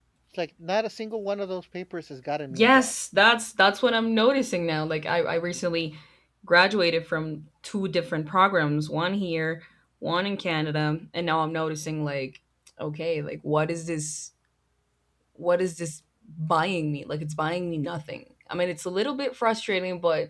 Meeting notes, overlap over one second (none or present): none